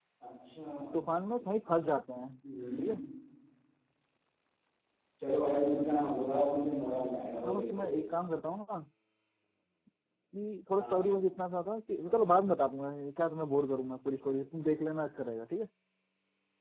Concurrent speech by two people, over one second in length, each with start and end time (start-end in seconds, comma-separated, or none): none